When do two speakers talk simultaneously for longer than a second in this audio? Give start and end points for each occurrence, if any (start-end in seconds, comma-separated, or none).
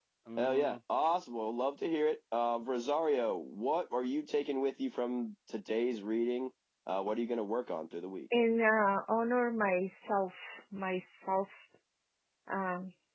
none